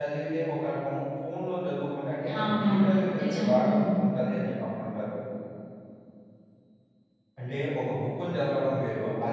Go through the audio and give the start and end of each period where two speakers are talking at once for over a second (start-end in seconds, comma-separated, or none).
2.4-3.9